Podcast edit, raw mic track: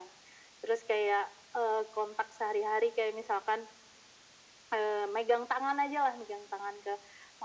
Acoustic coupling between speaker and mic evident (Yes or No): Yes